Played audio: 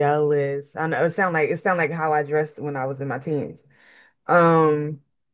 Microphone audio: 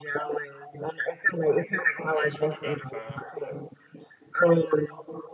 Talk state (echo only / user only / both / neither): both